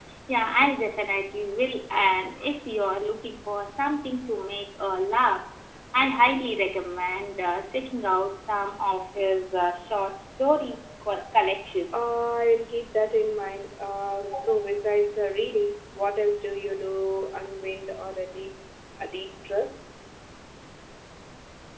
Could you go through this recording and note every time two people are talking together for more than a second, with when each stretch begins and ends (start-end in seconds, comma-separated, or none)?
none